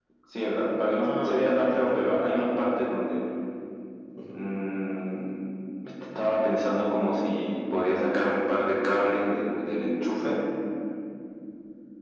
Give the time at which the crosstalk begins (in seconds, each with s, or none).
1.0 s